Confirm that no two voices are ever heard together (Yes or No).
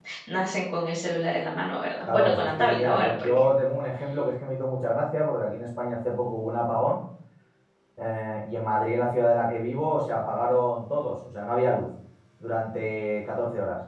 No